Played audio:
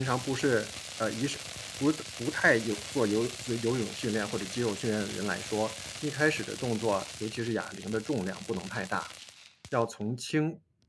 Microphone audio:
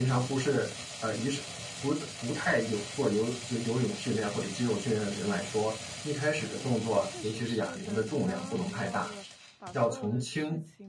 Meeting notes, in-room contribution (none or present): present